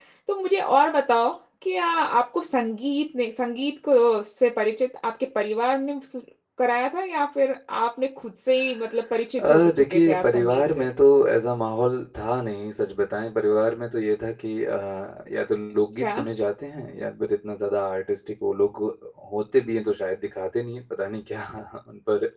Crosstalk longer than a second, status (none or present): present